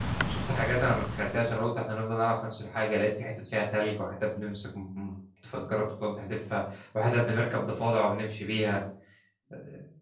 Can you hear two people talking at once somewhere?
No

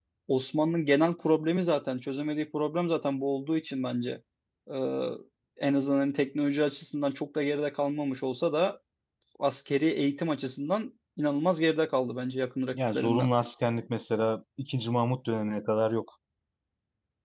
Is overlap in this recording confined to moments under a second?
Yes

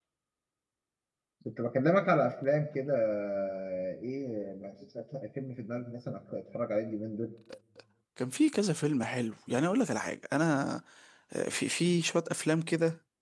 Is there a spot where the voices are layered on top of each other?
No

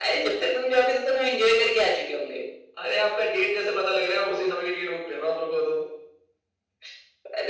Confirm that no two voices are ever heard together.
Yes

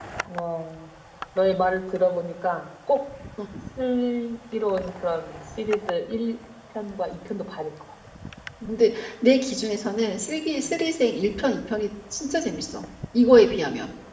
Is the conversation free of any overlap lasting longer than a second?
Yes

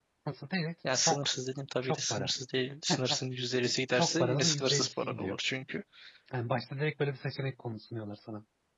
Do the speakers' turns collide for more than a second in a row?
Yes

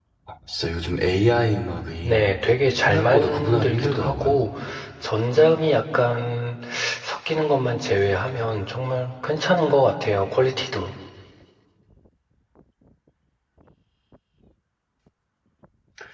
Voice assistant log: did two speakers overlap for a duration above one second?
Yes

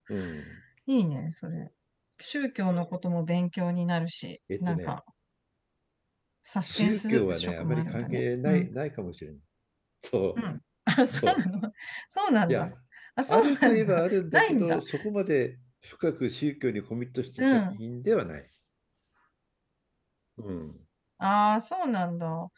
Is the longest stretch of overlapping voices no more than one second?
No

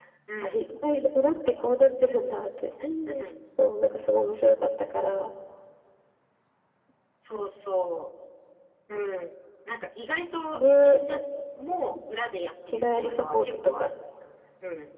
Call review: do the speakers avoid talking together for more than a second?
No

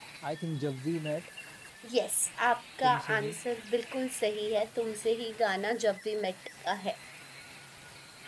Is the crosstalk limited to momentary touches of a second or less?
Yes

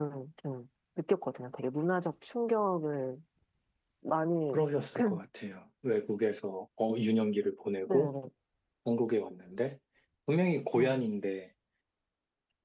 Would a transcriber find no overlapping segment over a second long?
Yes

